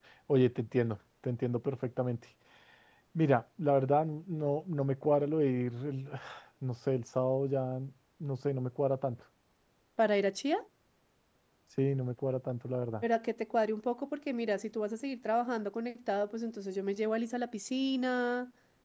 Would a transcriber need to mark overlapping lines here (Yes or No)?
No